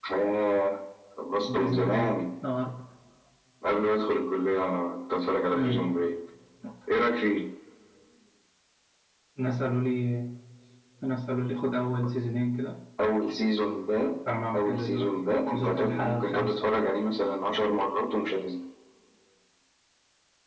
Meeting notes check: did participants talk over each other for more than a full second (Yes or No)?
Yes